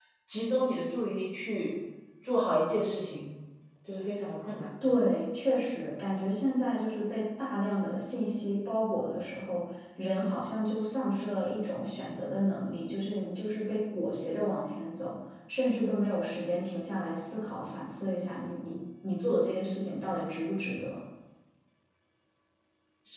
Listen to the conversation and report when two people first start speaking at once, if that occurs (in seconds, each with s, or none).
none